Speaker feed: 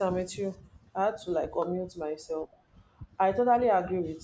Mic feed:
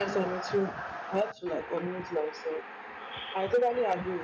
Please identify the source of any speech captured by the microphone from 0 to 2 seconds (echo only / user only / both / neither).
echo only